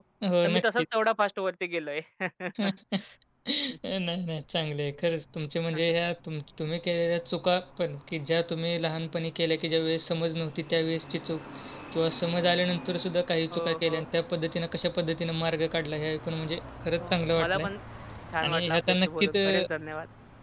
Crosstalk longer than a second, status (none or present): present